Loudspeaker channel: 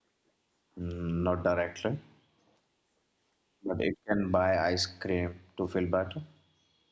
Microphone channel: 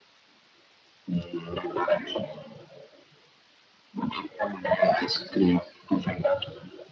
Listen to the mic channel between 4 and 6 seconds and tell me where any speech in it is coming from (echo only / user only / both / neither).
echo only